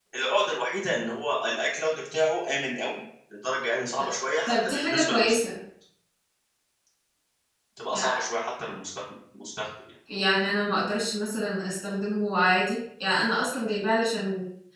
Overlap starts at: 4.0 s

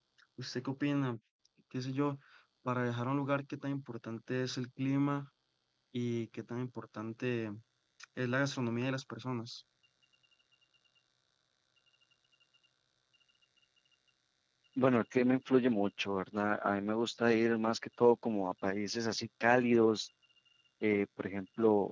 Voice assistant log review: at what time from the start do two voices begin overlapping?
none

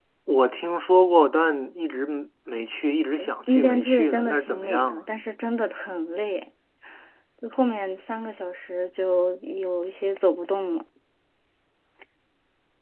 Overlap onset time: 3.5 s

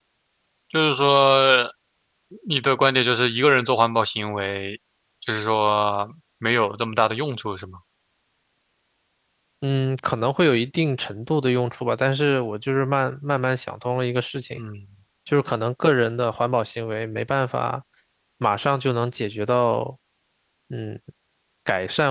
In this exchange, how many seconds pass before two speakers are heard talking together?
none

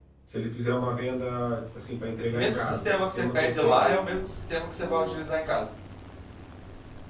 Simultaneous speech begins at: 2.3 s

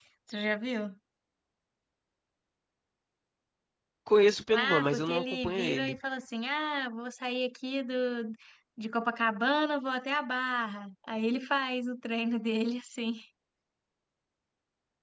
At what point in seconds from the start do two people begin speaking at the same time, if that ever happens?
4.5 s

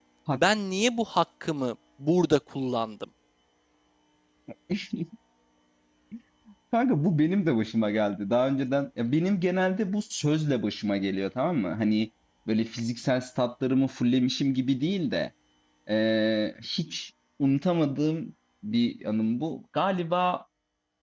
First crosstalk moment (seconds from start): none

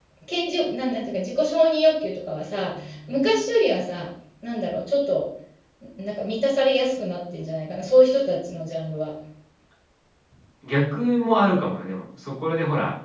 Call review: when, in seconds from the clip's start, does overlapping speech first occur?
none

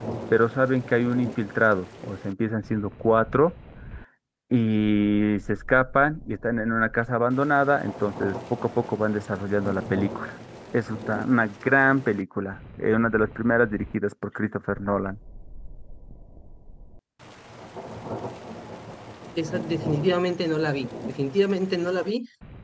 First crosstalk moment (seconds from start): none

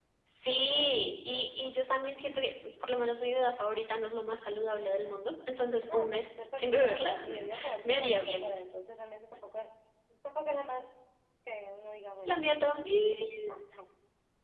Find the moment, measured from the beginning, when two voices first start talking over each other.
5.9 s

